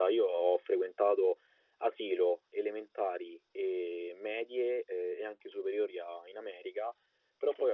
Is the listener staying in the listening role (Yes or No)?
Yes